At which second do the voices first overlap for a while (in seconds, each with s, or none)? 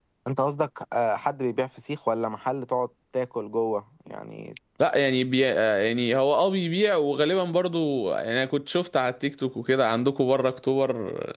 none